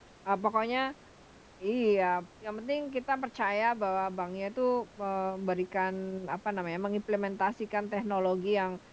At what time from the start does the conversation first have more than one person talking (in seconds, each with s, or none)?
none